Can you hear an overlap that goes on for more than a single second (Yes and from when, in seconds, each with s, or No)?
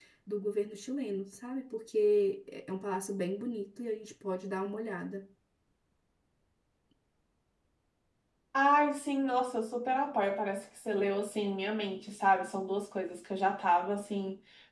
No